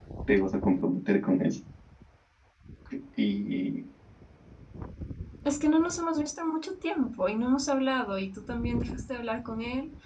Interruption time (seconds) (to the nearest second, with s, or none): none